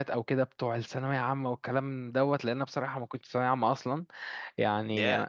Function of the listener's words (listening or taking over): listening